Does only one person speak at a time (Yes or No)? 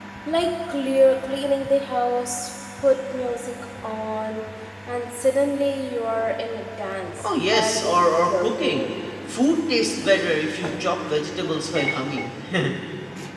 No